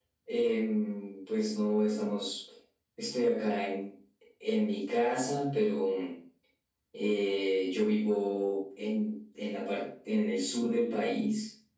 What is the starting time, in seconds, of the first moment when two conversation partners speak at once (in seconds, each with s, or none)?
none